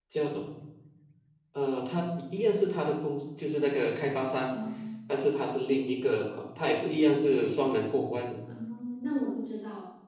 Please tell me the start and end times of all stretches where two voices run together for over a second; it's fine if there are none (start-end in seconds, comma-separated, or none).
none